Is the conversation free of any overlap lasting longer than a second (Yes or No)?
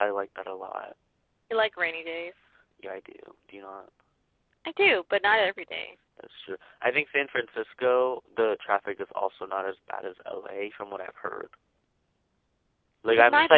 Yes